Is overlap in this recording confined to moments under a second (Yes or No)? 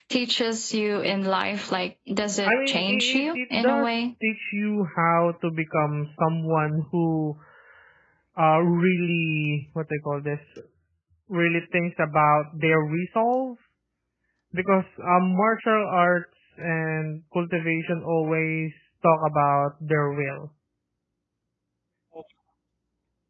No